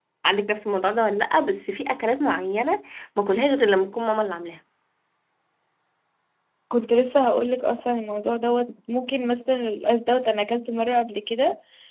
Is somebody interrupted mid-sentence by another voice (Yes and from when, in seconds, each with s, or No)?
No